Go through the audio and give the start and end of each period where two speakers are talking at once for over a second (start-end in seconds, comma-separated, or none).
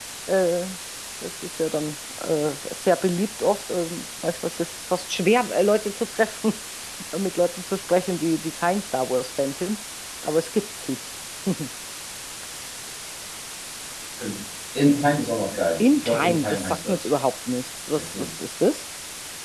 15.8-17.0